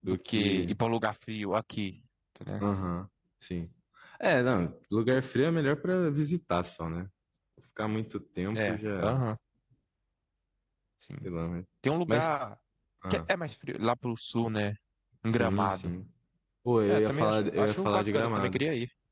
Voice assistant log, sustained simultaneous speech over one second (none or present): present